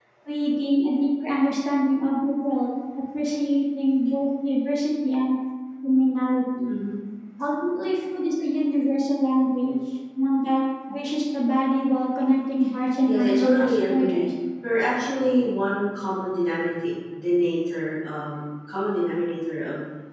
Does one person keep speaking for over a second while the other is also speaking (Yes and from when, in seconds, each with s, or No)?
Yes, from 13.0 s